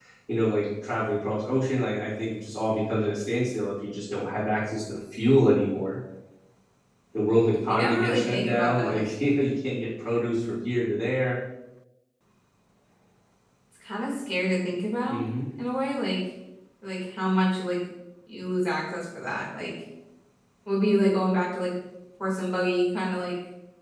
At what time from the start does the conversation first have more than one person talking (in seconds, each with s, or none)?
7.6 s